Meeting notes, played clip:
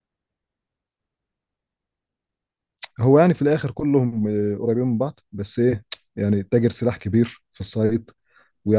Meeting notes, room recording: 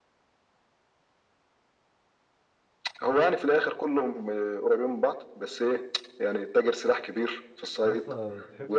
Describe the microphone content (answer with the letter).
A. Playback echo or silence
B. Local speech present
B